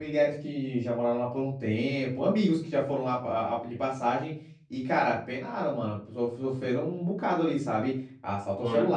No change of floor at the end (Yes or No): Yes